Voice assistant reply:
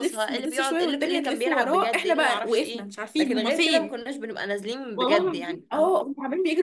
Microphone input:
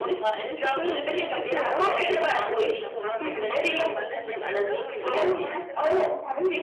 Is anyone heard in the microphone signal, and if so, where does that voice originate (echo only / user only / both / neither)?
both